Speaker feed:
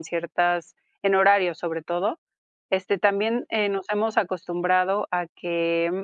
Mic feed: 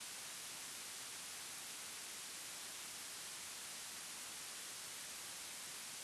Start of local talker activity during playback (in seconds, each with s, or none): none